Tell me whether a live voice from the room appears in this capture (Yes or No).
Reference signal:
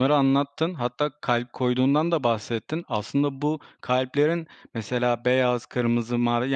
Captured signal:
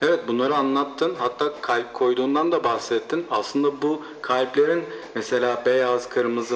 No